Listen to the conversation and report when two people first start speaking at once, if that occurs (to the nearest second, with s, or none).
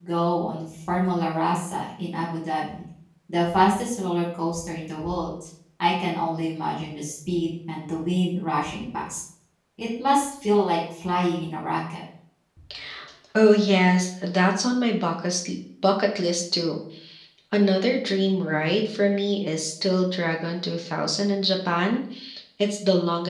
none